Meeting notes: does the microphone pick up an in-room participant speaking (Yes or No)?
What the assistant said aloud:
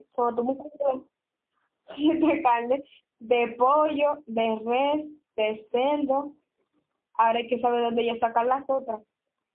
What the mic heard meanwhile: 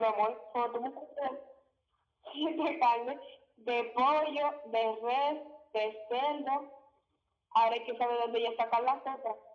No